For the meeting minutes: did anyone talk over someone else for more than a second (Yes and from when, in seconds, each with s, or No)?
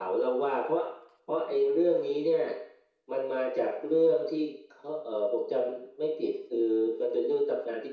No